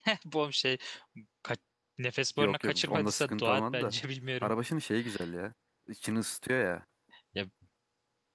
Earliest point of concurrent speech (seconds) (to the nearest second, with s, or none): 2 s